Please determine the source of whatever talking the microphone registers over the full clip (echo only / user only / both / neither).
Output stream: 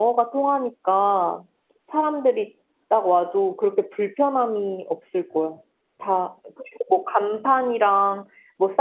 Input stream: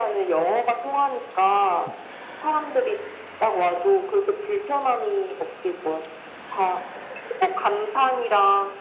echo only